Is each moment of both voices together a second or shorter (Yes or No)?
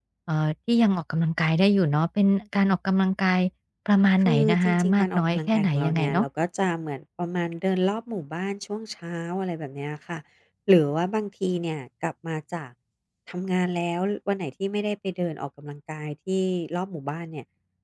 No